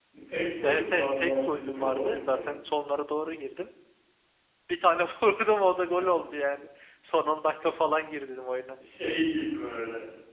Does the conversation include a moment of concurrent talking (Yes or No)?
Yes